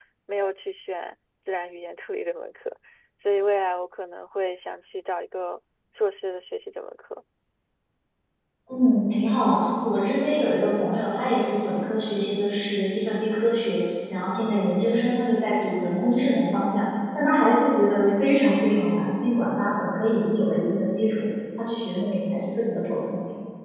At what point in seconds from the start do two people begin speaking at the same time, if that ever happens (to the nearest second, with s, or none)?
none